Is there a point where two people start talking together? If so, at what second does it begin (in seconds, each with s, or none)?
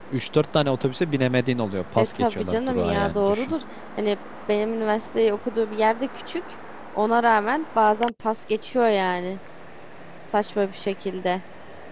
2.0 s